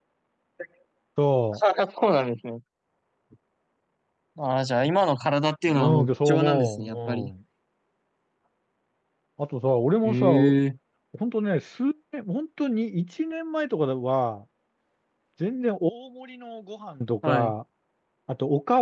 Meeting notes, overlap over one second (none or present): present